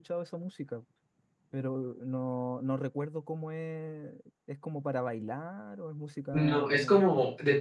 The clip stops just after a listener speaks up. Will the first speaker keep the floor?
No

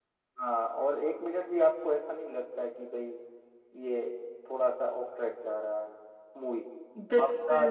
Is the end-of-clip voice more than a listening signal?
Yes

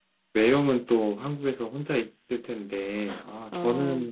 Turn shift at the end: No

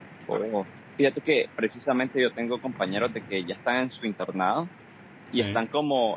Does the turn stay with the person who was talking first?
Yes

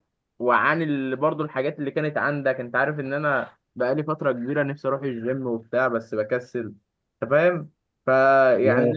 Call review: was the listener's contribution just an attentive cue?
Yes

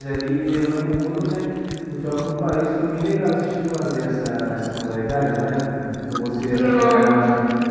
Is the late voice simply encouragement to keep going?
Yes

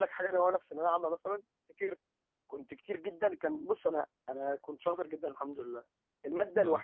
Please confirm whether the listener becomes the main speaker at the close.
No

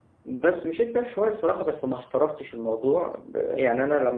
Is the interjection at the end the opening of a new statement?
No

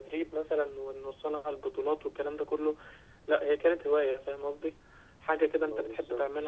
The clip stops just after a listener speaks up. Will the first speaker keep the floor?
Yes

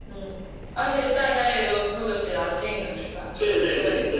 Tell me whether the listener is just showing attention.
No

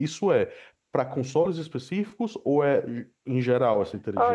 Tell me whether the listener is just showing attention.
No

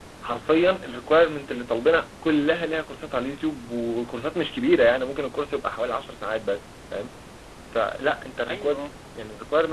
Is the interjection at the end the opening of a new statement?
No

